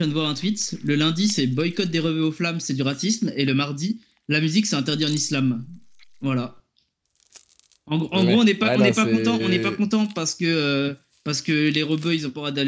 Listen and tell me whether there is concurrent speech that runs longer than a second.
Yes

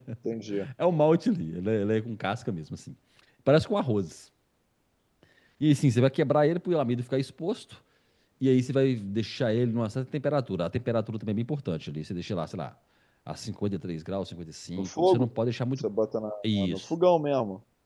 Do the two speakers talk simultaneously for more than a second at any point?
No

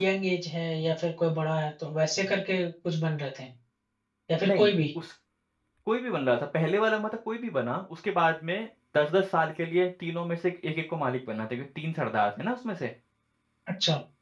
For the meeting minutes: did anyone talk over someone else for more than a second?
No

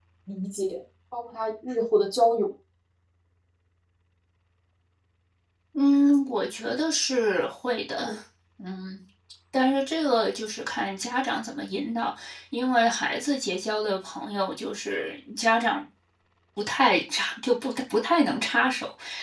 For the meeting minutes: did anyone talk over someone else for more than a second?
No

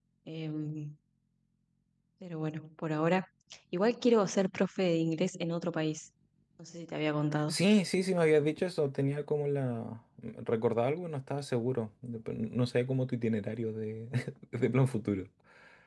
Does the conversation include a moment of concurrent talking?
No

